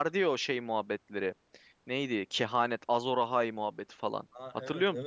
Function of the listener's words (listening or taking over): taking over